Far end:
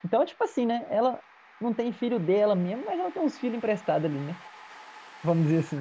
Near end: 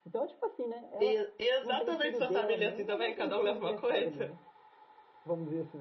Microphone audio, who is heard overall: both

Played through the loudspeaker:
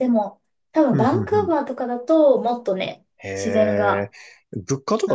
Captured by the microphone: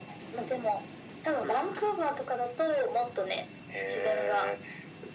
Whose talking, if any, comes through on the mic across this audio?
echo only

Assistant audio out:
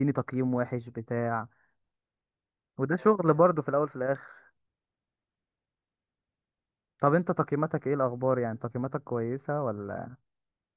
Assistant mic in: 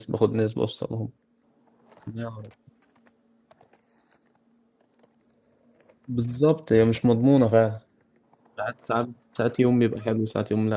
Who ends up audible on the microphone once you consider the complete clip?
user only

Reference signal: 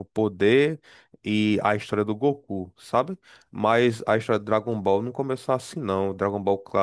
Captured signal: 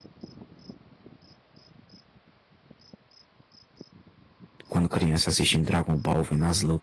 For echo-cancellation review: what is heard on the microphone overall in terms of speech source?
user only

